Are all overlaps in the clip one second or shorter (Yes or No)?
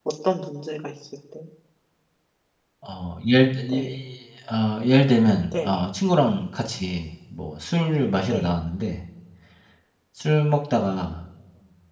Yes